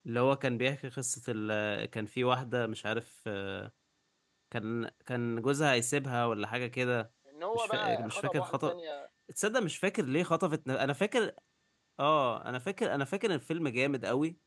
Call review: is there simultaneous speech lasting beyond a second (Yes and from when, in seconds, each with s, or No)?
Yes, from 7.5 s